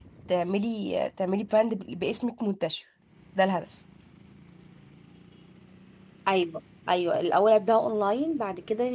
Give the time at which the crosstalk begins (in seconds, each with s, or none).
none